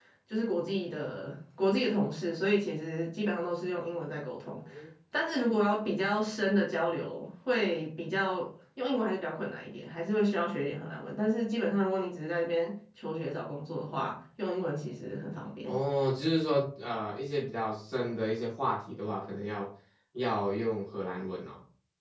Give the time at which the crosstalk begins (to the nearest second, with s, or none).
none